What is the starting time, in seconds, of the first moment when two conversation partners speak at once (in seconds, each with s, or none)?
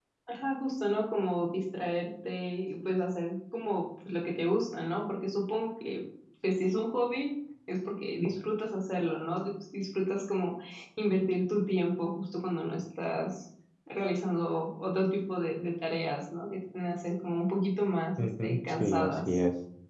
18.2 s